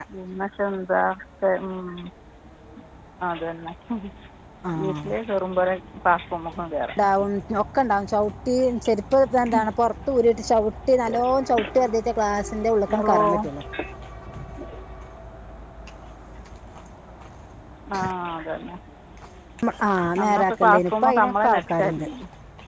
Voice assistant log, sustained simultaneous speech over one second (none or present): present